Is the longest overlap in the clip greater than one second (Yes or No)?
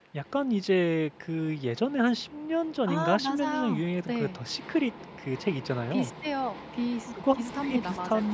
Yes